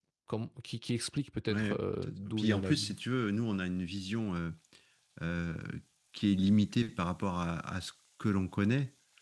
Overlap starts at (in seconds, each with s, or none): 1.5 s